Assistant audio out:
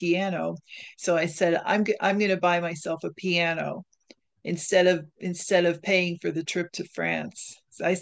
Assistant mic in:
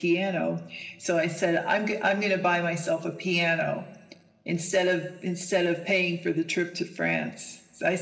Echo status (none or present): present